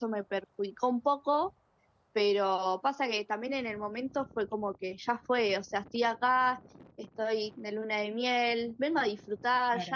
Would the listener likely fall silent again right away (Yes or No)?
Yes